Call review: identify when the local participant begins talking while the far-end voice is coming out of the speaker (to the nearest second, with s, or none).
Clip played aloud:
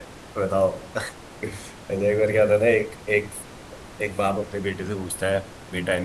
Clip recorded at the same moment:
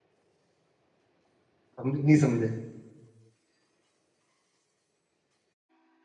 2 s